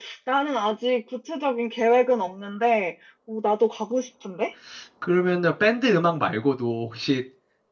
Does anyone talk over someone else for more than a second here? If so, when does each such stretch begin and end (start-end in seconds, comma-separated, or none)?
none